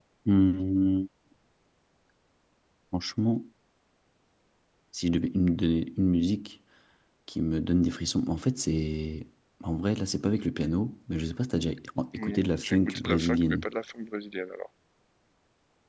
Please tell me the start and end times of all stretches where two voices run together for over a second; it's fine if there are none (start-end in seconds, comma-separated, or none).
12.2-13.6